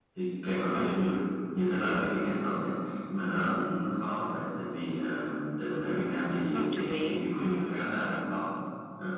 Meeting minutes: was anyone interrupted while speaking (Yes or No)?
Yes